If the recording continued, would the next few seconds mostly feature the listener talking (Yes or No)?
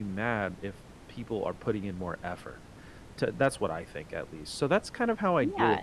No